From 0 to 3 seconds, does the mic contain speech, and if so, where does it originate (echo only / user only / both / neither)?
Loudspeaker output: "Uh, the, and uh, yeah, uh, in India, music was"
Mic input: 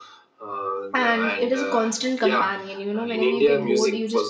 both